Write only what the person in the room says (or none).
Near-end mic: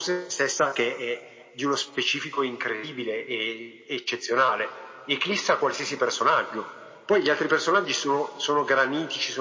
none